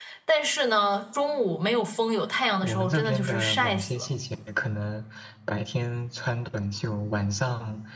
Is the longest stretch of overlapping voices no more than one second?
No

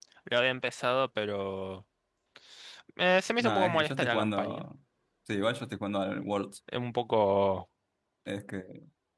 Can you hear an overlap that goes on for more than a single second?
Yes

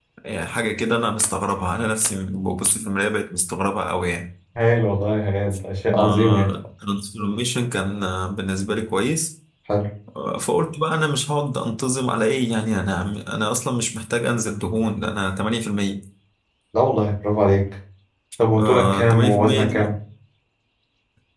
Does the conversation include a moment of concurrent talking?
Yes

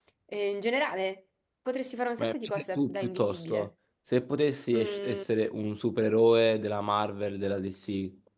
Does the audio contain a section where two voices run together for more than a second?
Yes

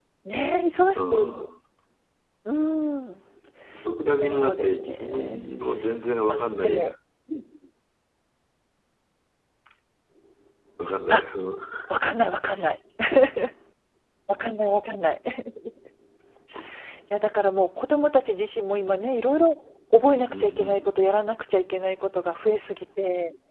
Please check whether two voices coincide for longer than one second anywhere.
Yes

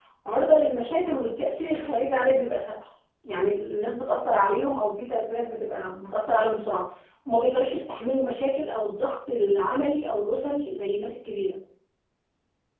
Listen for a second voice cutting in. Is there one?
No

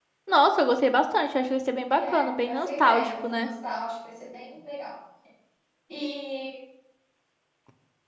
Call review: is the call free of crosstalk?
No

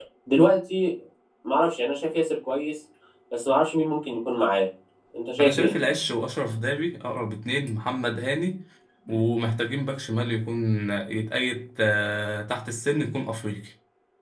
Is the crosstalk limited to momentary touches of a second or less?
Yes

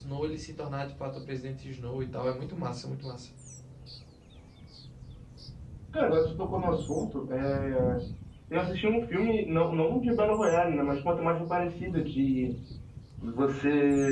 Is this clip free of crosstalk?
Yes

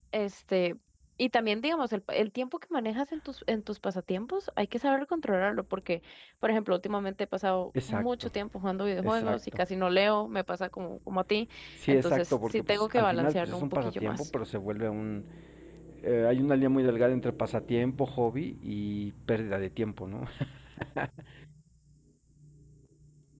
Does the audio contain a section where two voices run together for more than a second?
Yes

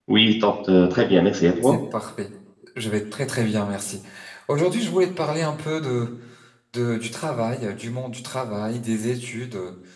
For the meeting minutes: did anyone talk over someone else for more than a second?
No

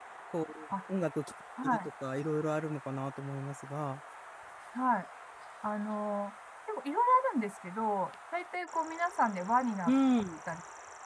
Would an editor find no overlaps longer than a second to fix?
Yes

